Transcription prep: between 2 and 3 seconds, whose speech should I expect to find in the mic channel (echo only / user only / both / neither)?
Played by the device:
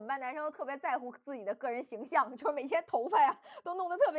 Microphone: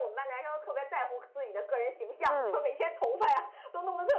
both